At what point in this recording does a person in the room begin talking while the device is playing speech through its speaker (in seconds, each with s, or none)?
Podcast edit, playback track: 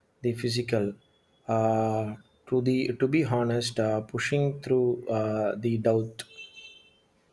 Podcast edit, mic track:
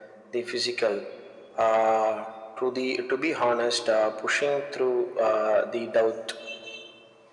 none